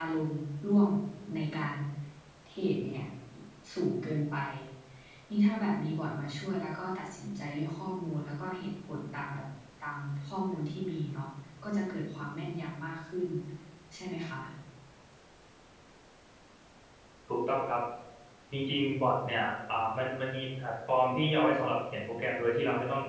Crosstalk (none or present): none